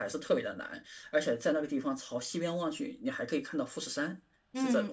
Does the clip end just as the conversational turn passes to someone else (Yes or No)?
Yes